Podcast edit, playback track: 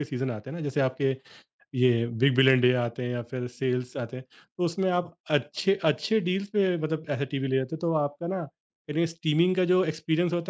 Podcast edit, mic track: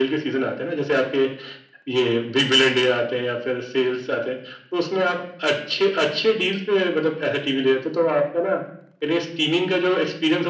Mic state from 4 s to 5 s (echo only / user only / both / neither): echo only